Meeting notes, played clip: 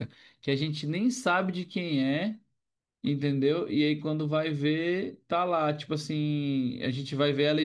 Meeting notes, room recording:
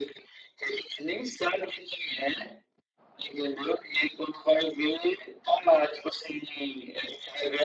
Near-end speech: none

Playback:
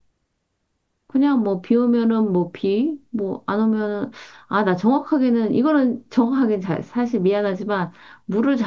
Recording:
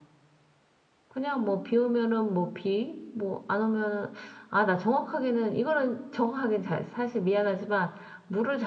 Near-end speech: none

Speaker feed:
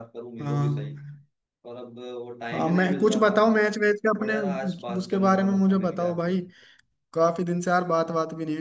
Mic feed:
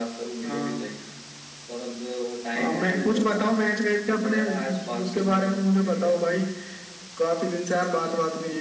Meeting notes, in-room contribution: none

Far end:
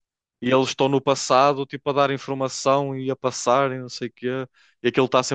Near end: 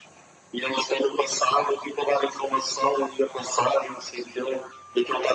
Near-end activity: none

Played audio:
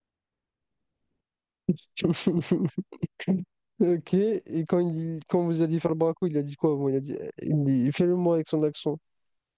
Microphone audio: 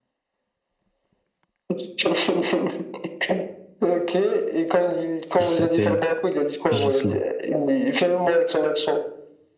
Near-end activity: present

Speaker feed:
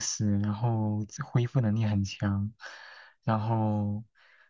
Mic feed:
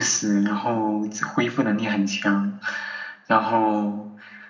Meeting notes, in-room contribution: none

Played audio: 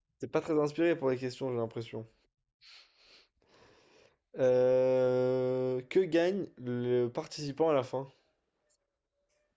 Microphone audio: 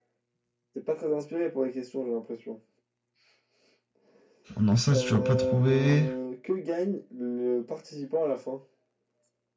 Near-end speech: present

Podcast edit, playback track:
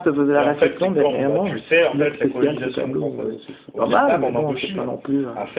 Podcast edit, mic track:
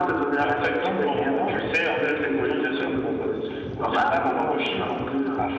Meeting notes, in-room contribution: none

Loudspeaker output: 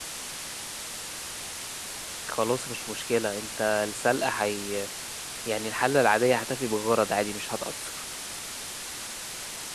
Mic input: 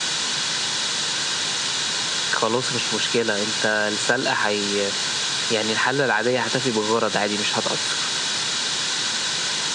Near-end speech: none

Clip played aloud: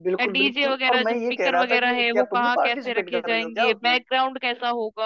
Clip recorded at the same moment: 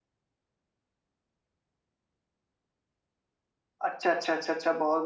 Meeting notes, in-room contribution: present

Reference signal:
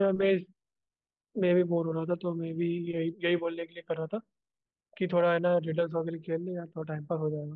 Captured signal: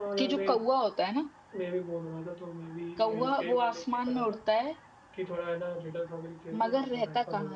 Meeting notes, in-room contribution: present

